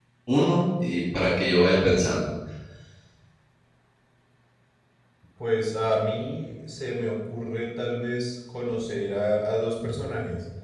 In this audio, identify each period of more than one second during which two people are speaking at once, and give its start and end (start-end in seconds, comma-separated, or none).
none